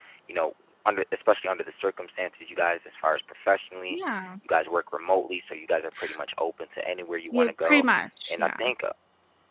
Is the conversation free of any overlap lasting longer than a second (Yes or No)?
Yes